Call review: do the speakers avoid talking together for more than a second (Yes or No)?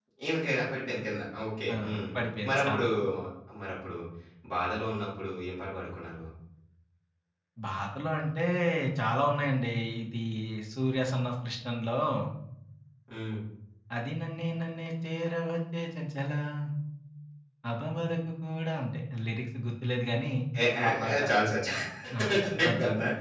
Yes